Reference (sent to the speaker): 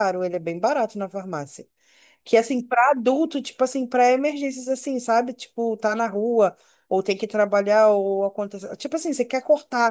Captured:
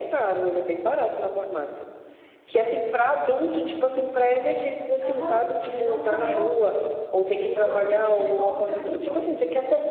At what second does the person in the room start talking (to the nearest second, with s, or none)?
5 s